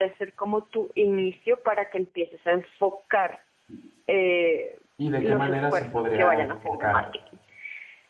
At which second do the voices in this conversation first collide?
5.2 s

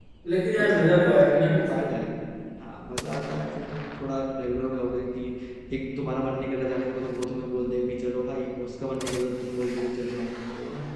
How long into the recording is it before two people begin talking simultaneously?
0.6 s

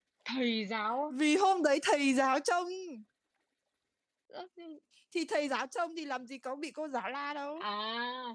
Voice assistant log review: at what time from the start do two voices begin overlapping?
none

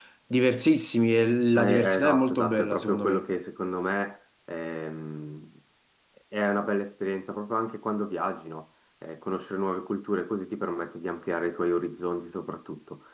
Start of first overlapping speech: 1.6 s

